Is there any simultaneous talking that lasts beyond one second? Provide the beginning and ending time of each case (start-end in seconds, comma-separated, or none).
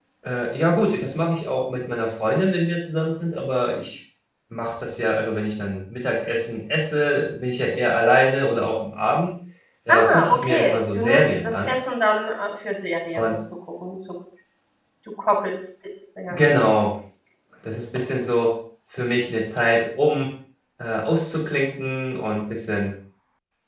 9.9-11.7